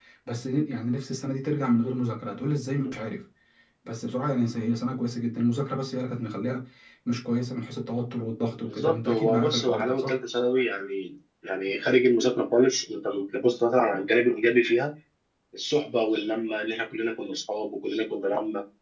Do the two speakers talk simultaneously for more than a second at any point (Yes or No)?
Yes